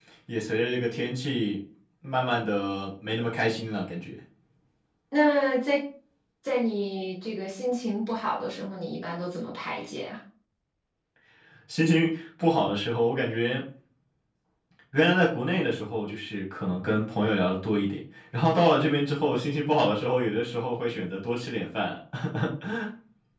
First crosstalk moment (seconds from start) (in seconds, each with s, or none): none